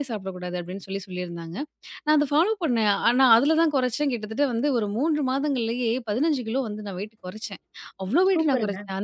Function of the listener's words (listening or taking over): listening